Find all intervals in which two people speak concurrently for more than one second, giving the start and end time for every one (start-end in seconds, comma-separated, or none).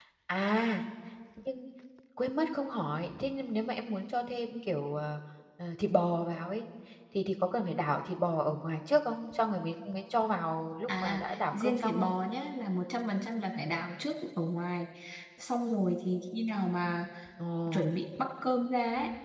10.9-12.1